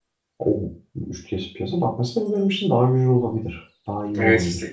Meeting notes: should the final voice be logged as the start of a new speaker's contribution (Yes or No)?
Yes